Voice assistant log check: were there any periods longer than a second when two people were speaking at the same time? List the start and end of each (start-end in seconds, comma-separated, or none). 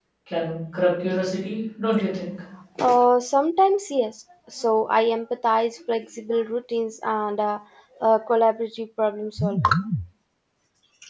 none